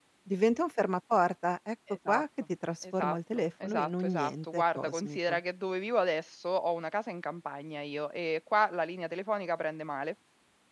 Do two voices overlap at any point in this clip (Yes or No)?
Yes